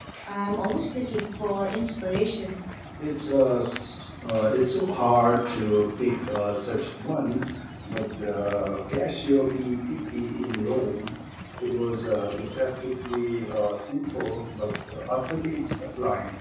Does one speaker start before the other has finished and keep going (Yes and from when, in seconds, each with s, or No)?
No